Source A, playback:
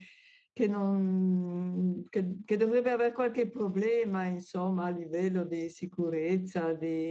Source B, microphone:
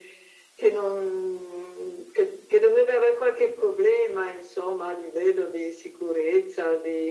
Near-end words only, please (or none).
none